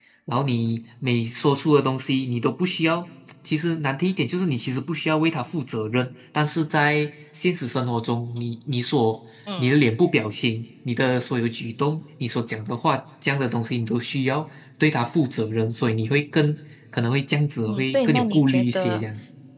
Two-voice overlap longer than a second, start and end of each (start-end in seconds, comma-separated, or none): 17.7-19.0